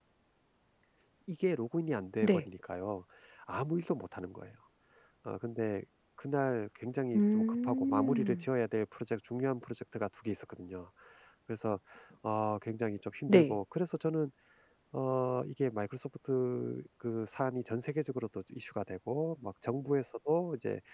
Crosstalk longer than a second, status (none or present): present